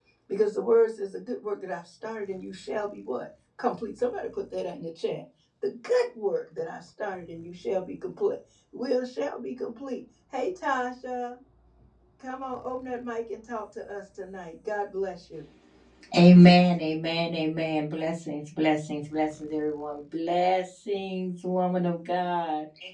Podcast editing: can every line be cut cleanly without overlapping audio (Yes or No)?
Yes